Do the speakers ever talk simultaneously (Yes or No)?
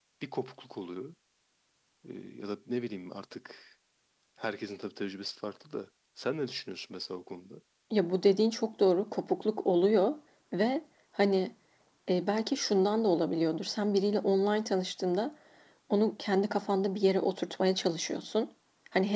No